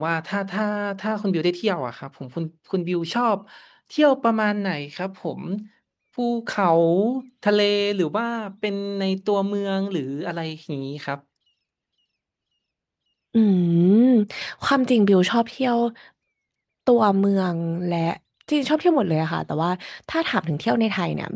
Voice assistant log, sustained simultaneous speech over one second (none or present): none